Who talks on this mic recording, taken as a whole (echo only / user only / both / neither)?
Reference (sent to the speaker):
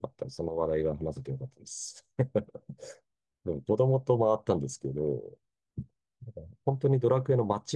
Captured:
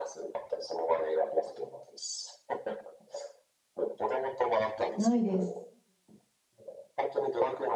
both